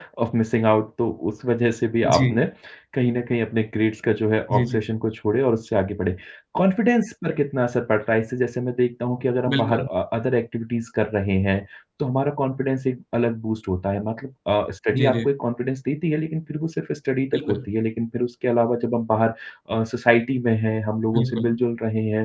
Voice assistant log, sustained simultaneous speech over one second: none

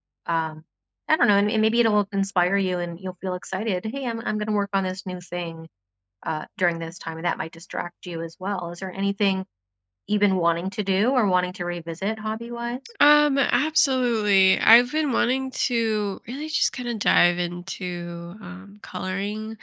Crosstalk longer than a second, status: none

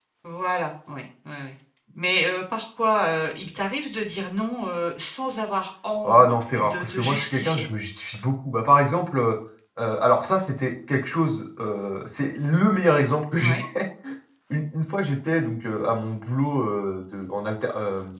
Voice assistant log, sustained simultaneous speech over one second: present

